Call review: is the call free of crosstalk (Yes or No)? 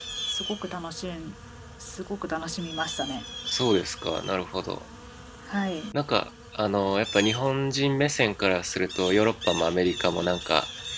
Yes